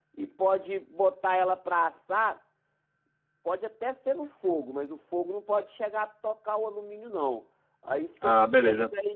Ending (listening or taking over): listening